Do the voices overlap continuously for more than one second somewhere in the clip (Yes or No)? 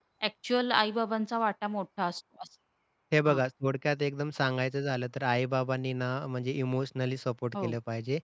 No